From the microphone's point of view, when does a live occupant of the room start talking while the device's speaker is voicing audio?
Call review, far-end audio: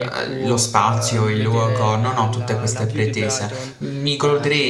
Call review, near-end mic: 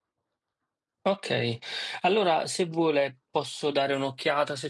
1.0 s

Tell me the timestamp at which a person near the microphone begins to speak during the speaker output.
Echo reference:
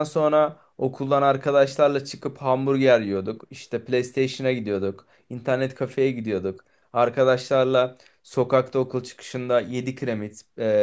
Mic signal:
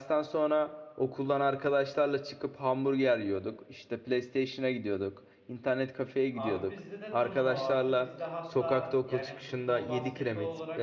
6.3 s

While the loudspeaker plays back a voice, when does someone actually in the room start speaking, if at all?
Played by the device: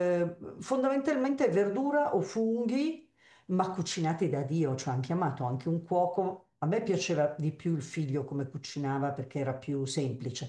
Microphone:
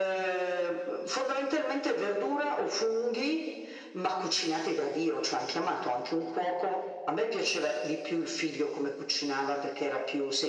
none

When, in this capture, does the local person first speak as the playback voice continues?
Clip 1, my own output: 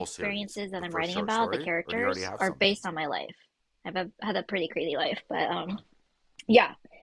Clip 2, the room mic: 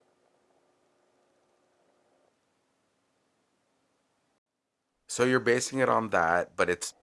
5.1 s

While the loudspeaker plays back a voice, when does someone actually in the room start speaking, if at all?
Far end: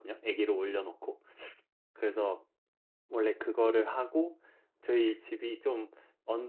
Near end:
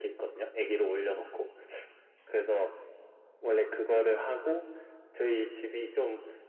none

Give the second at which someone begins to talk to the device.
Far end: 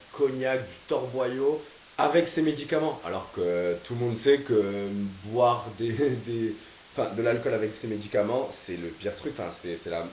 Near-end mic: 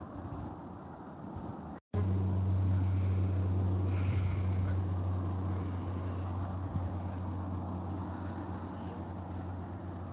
none

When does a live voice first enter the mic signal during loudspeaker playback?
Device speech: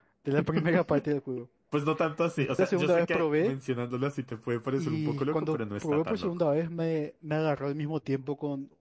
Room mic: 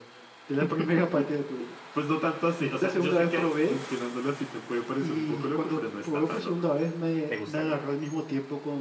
7.2 s

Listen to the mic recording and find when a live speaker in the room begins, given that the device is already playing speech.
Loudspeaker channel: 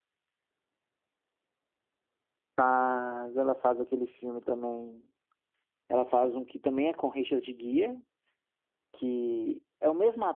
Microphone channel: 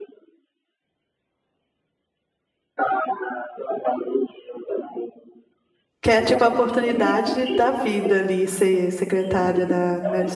6.0 s

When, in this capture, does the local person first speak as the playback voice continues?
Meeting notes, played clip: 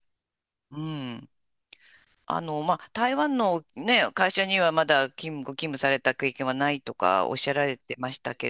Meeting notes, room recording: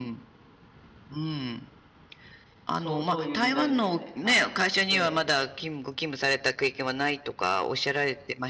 2.8 s

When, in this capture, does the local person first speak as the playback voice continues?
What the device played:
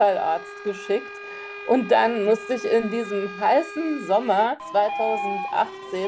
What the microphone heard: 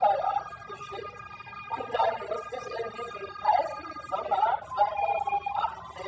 none

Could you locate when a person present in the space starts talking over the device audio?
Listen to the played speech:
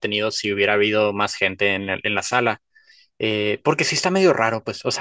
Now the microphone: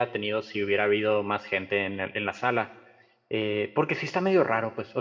none

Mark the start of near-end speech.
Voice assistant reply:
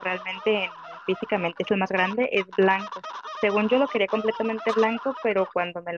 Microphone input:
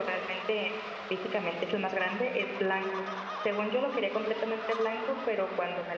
none

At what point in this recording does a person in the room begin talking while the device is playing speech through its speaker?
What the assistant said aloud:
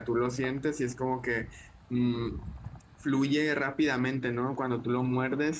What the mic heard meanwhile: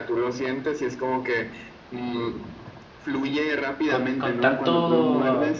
3.9 s

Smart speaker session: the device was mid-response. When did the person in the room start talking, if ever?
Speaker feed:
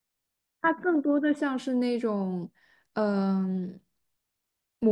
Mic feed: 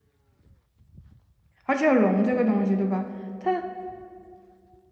1.6 s

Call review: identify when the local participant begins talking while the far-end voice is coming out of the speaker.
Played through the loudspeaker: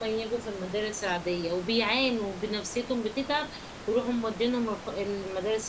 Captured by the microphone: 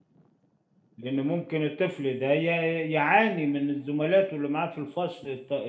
1.0 s

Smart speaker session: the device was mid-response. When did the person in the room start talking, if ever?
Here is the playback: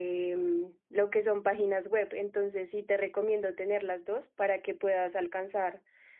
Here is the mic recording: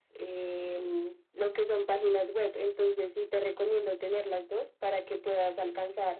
none

